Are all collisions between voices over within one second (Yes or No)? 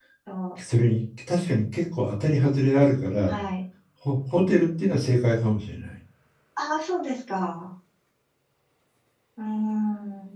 Yes